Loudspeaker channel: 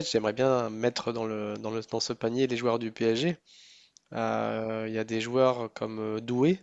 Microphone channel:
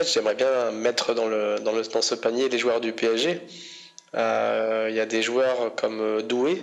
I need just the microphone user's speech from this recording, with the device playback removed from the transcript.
none

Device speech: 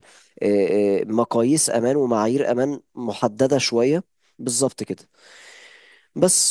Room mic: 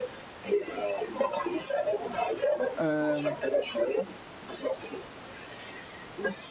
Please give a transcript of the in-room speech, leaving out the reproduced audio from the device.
أم،

